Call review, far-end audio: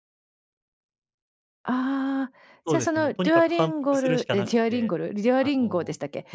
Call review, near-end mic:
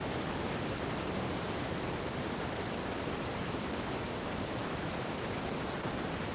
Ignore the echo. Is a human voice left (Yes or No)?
No